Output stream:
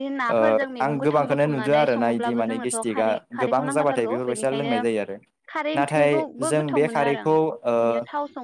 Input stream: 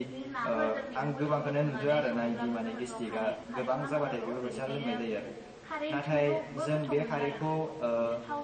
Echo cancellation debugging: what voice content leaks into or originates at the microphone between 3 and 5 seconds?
echo only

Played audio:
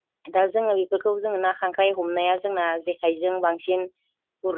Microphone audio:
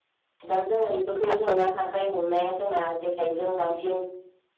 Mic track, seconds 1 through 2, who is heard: both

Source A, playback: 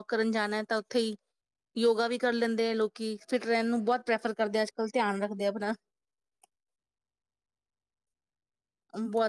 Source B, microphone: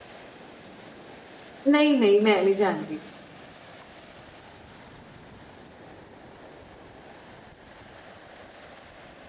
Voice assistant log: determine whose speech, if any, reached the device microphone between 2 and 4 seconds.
user only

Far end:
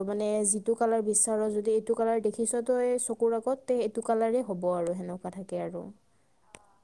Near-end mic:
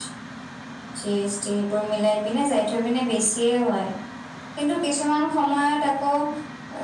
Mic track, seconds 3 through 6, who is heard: user only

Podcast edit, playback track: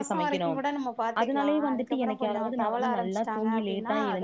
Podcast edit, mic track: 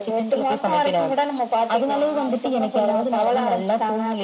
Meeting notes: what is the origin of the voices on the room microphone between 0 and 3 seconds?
echo only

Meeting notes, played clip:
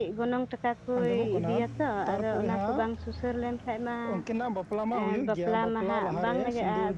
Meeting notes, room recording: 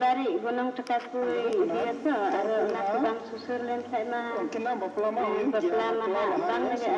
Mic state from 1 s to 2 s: echo only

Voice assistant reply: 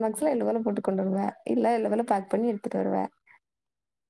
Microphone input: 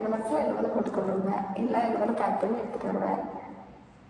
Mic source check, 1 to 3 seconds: echo only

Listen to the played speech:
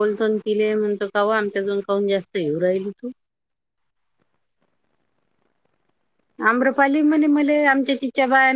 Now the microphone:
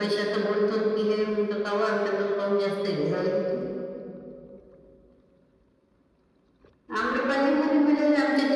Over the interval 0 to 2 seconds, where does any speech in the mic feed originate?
echo only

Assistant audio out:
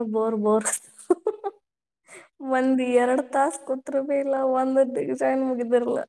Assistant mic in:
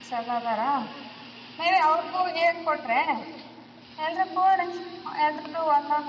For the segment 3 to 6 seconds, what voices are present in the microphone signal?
user only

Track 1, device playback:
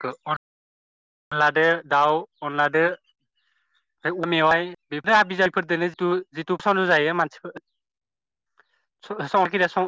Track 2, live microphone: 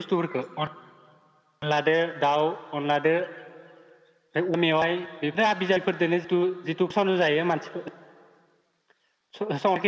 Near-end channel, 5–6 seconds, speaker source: echo only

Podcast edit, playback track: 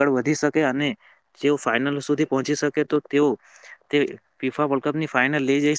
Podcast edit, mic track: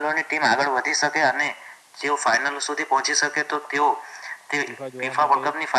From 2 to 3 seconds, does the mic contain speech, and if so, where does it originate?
echo only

